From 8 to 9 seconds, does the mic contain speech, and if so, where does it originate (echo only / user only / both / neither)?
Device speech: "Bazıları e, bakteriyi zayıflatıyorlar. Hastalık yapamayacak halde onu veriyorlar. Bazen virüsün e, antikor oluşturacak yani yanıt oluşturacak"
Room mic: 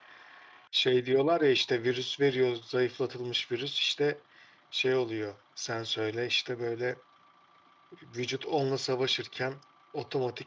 user only